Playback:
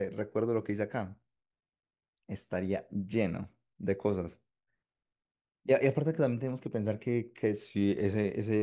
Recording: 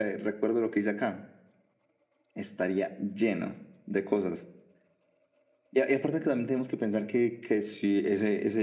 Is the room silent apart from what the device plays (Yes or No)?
Yes